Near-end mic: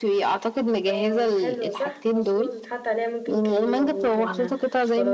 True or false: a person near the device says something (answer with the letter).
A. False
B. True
B